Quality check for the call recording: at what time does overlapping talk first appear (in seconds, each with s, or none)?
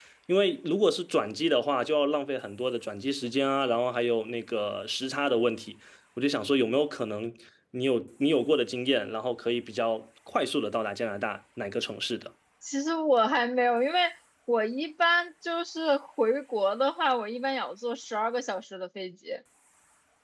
none